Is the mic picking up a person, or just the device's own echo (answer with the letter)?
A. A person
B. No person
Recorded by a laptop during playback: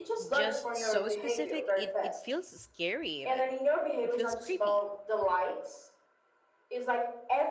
A